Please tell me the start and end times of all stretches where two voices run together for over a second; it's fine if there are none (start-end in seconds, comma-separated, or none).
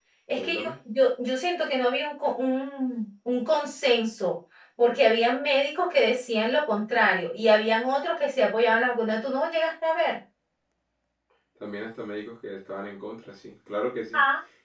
none